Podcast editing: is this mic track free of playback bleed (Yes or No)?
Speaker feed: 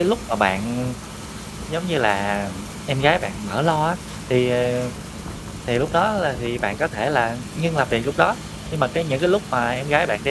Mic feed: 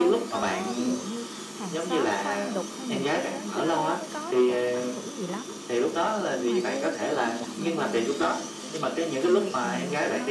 No